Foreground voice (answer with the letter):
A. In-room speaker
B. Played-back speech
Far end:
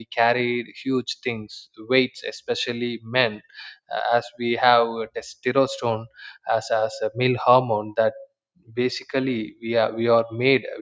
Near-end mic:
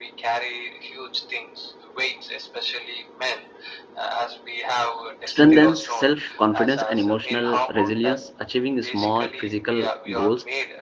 A